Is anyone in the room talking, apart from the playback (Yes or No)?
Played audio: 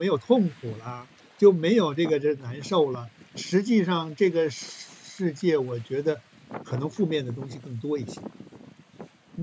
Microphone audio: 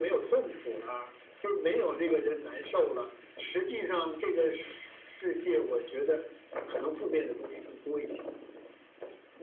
No